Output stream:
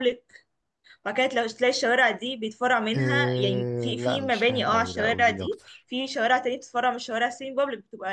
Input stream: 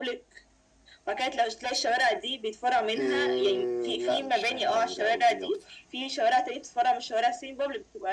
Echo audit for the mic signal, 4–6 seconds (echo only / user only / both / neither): echo only